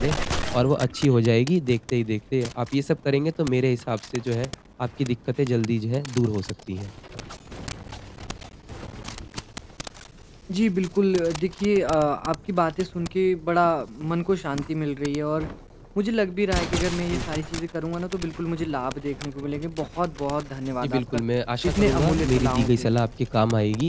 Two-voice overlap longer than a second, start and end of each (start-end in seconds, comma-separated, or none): 21.6-23.1